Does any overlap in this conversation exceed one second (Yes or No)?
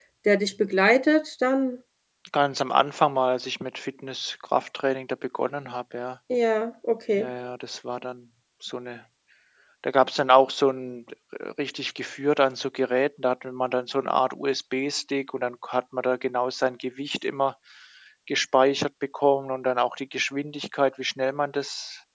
No